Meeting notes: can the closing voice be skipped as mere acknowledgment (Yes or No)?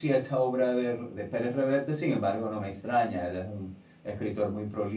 Yes